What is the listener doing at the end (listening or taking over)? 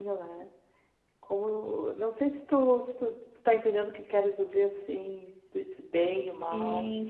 taking over